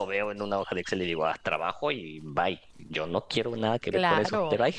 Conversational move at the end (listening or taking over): listening